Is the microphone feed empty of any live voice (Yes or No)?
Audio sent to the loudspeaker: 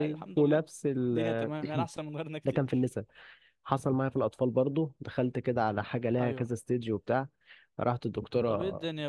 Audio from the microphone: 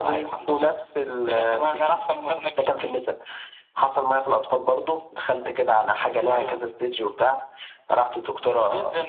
Yes